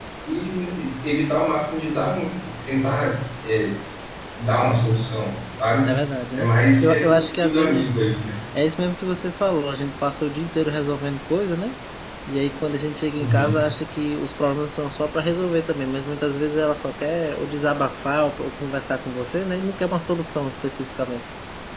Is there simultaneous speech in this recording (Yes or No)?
Yes